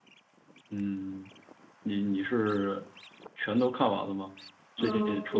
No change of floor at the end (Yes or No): No